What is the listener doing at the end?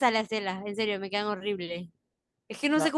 listening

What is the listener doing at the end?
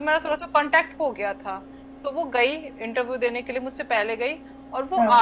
listening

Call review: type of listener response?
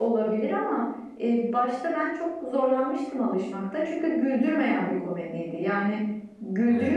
listening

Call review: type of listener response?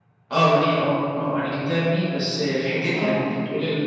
listening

